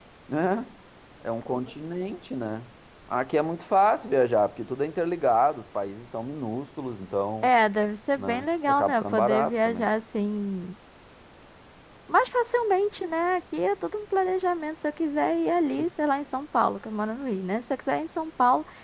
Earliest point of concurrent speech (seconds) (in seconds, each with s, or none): 8.2 s